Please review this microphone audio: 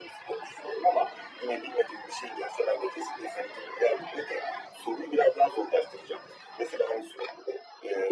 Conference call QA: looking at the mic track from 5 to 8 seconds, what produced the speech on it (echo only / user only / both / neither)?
echo only